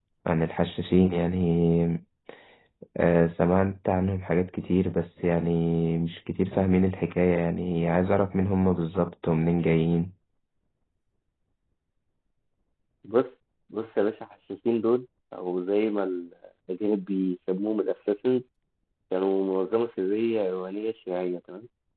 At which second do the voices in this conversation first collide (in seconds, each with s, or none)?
none